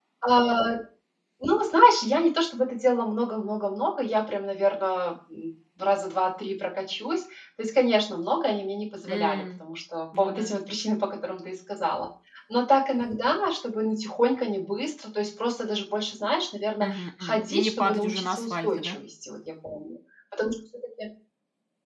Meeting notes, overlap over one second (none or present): present